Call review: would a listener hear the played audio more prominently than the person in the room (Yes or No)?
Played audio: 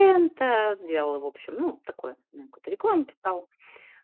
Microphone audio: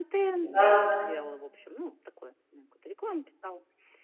No